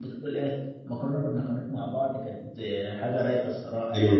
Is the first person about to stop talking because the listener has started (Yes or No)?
Yes